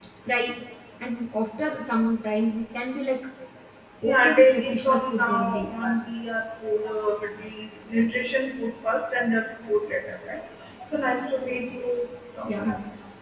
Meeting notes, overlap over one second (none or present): present